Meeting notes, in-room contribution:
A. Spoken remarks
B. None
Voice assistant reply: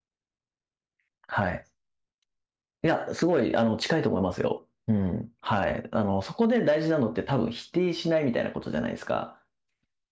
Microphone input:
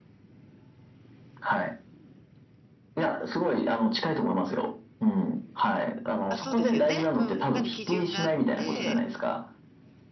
A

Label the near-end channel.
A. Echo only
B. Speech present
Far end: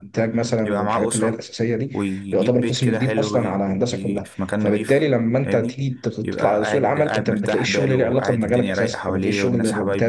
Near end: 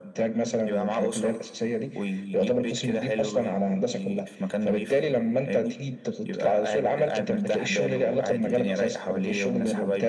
B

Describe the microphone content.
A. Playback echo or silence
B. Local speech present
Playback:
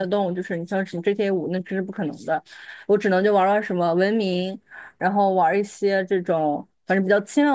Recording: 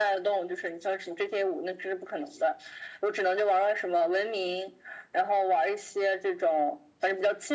A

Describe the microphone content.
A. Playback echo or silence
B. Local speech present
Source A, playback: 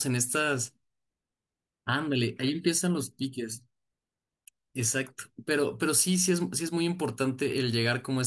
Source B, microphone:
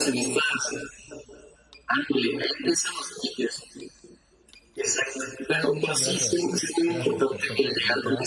B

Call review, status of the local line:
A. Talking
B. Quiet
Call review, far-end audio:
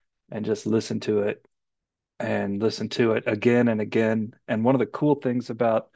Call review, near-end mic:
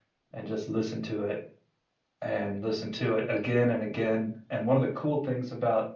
B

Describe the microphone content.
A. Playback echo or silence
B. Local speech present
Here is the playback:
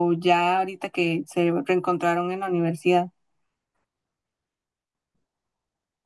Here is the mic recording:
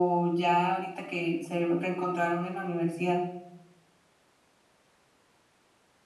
A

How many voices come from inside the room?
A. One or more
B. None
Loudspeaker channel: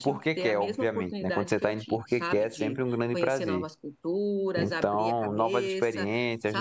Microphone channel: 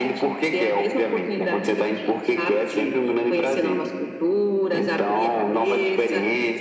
B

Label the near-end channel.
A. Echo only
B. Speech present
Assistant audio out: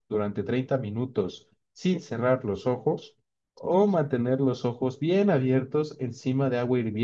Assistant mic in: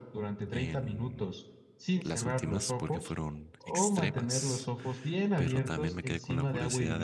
B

